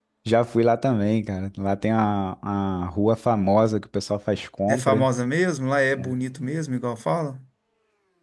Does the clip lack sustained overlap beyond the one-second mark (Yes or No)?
Yes